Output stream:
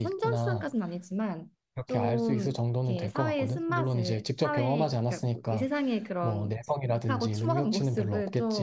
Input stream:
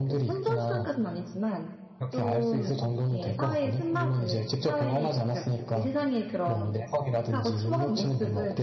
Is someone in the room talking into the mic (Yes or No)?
No